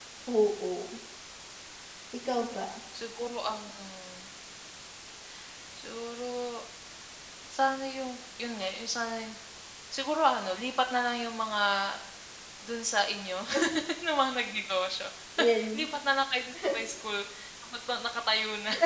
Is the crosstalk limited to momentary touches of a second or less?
Yes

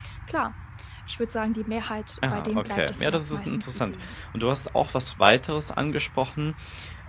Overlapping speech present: Yes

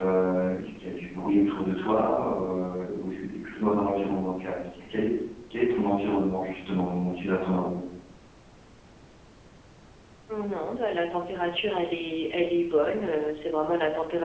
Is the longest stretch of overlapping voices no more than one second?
Yes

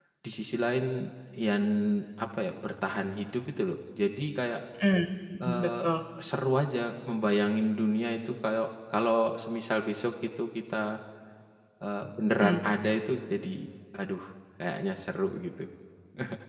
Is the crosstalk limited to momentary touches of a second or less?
Yes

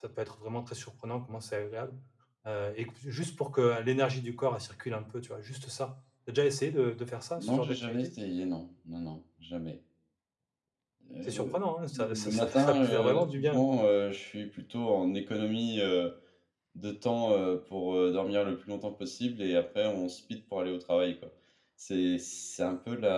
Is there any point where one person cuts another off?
Yes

